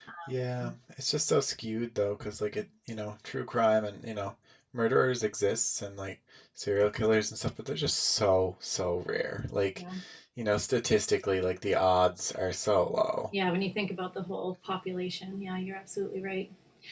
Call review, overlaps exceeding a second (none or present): none